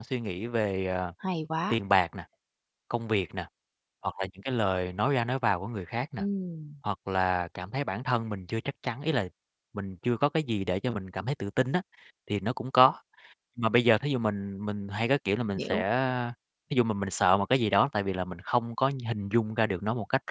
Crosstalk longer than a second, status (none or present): none